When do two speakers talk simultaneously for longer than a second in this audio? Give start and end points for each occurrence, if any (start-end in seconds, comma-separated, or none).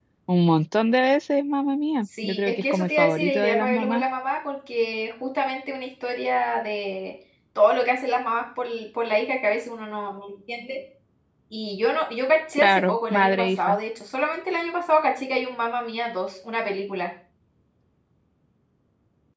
2.2-4.0, 12.5-13.8